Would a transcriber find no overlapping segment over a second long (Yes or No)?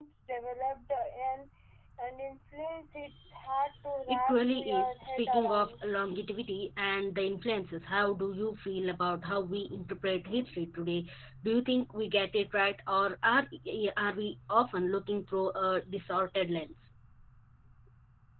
No